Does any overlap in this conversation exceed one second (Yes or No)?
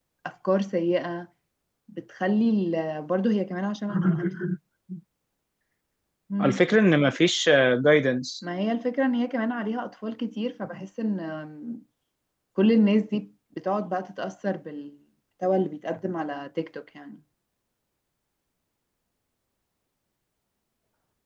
No